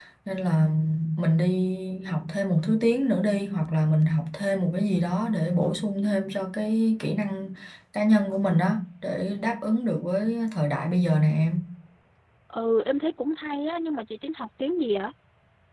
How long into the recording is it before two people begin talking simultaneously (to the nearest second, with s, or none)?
none